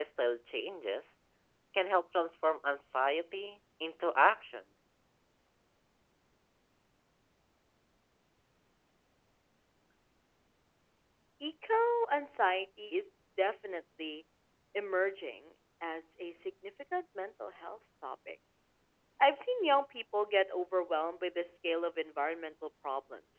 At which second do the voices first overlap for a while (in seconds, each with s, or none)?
none